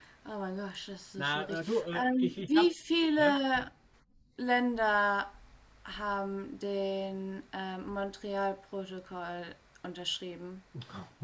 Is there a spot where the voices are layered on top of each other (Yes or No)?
Yes